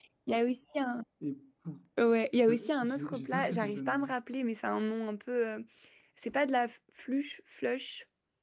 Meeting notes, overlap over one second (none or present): present